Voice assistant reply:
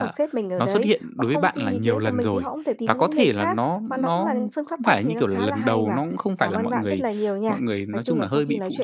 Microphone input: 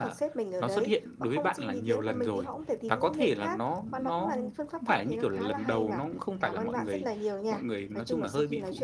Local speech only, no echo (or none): none